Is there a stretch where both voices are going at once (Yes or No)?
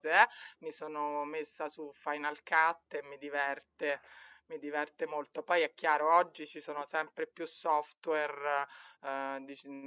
No